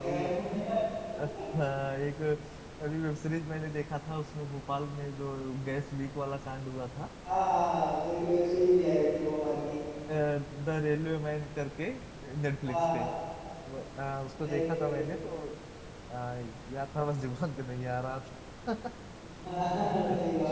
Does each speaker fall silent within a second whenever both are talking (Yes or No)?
Yes